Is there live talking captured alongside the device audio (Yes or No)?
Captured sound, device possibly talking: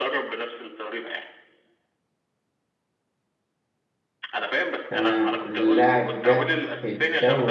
Yes